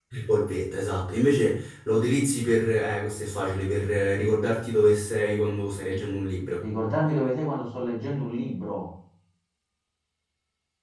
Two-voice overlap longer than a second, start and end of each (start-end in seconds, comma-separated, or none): none